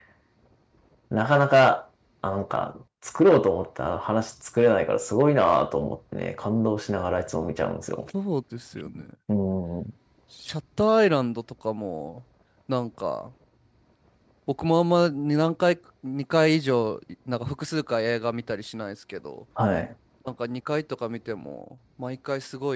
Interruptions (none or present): none